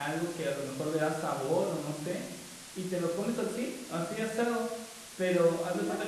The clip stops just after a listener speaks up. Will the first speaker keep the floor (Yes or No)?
Yes